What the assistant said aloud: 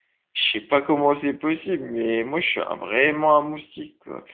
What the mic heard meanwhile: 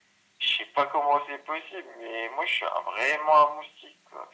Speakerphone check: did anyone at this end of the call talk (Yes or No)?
No